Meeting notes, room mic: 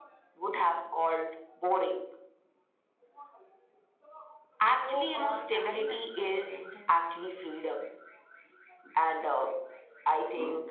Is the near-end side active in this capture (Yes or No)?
Yes